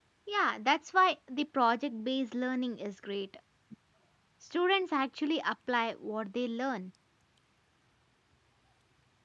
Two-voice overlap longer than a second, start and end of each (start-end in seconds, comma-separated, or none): none